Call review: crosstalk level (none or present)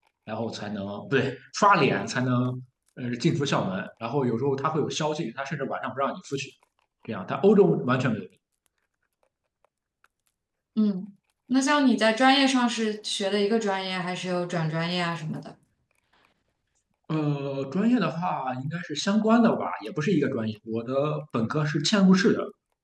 none